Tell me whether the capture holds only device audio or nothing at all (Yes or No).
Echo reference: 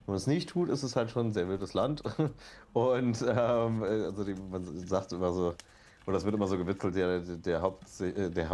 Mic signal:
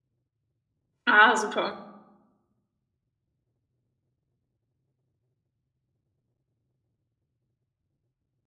No